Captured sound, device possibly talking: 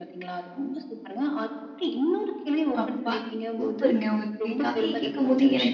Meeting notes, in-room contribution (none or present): present